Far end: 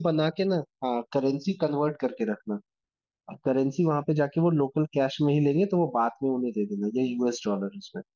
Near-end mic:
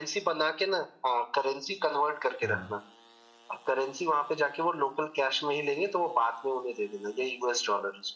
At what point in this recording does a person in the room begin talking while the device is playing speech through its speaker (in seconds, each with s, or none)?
2.4 s